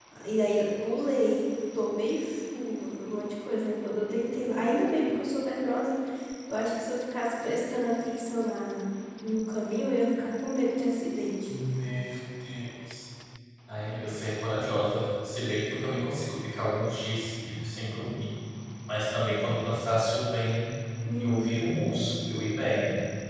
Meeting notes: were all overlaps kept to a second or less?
Yes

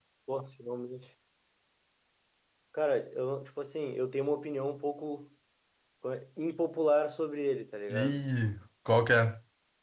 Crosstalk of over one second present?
No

